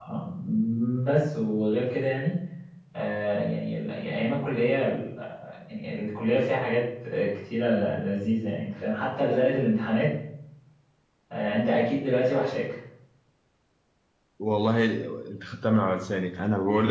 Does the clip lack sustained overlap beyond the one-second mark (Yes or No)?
Yes